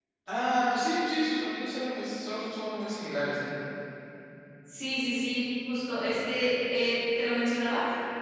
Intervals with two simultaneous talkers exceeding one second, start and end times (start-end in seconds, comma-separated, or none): none